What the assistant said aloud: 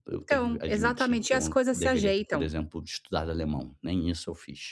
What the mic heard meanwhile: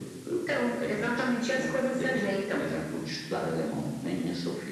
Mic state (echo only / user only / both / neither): echo only